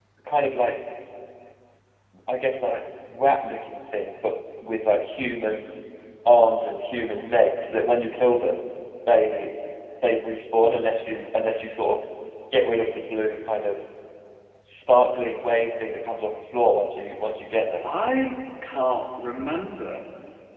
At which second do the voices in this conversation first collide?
none

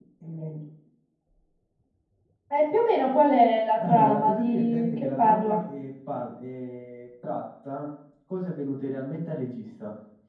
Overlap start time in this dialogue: 3.8 s

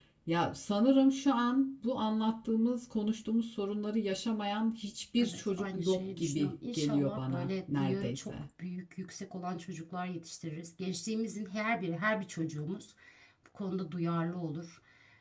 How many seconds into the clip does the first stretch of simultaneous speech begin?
5.2 s

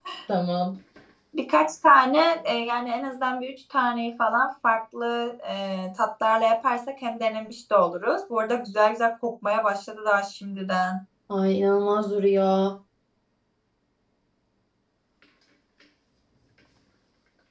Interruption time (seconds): none

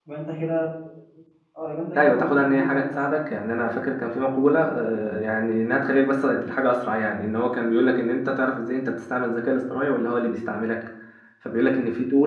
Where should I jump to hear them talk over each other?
2.0 s

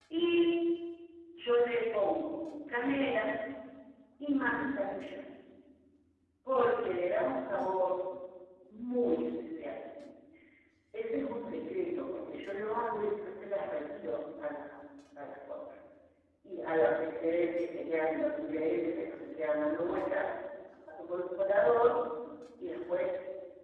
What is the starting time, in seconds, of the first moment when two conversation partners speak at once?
none

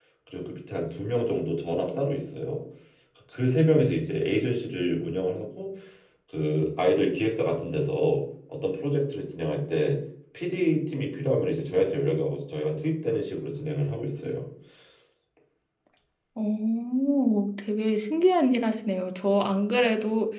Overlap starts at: none

